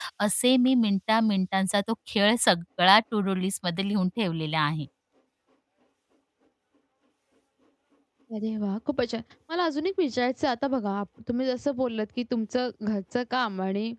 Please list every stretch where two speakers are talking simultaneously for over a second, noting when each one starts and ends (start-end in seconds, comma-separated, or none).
none